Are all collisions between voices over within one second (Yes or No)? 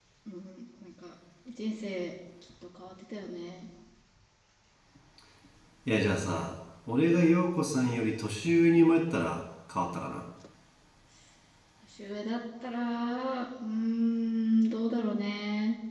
Yes